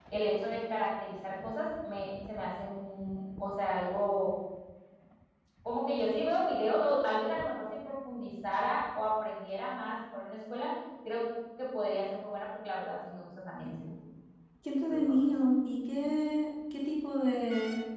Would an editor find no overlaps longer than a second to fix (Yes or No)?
Yes